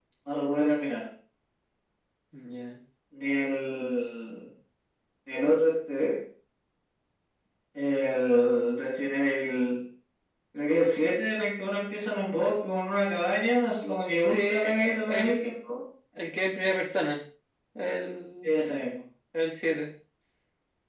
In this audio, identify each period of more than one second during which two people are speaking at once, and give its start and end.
14.3-15.5

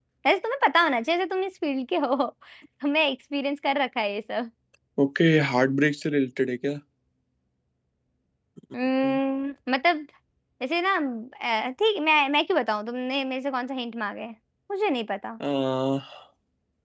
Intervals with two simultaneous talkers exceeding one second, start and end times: none

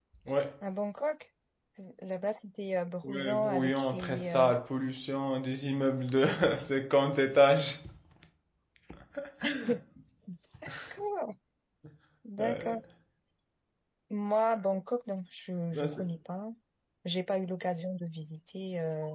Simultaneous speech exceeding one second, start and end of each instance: 3.0-4.5

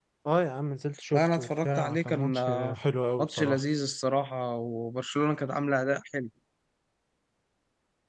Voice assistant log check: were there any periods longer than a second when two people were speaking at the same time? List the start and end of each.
1.1-2.8

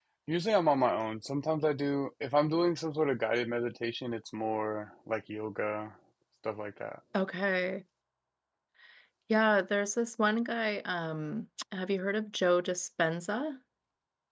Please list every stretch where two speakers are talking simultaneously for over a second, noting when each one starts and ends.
none

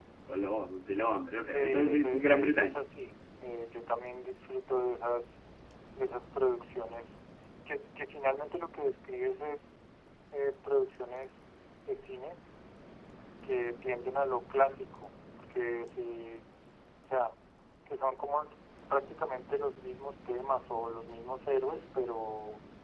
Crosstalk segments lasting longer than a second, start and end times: 1.5-2.8

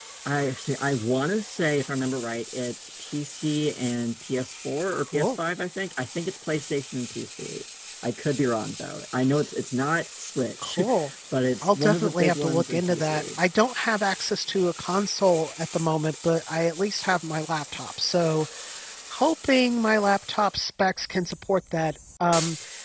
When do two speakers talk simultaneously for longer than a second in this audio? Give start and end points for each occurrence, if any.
11.6-13.4

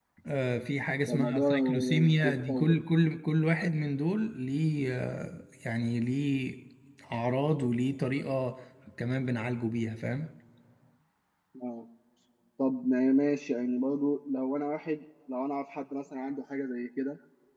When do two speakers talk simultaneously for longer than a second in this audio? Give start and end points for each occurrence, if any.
1.1-2.8

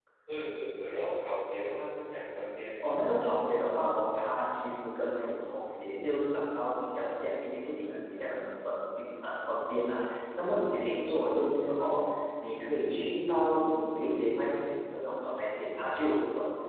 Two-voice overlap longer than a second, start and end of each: none

